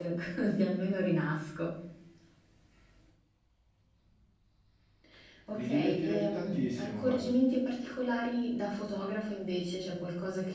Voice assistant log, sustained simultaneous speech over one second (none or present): present